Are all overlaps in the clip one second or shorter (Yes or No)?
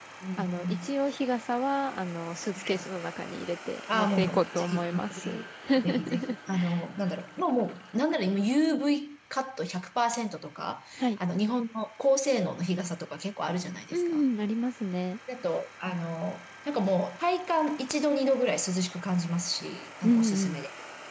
No